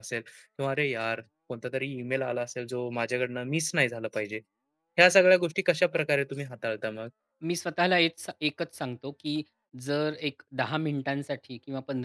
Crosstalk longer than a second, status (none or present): none